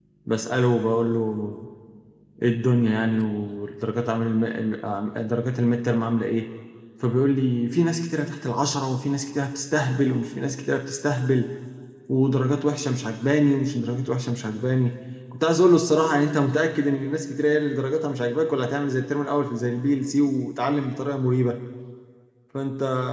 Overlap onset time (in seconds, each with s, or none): none